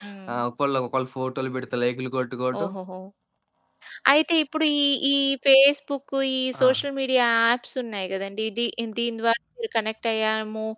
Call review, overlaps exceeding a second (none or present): none